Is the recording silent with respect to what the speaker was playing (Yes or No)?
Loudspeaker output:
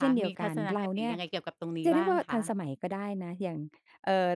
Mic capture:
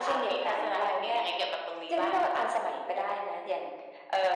No